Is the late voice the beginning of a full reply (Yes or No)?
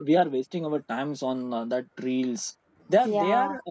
No